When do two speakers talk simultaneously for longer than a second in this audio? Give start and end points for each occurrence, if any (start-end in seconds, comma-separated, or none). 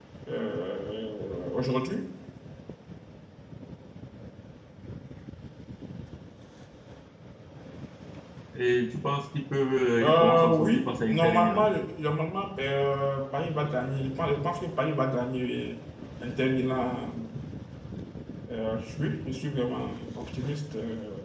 10.0-11.7